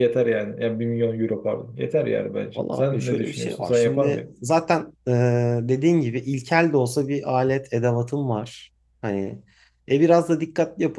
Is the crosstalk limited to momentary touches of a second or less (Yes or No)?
No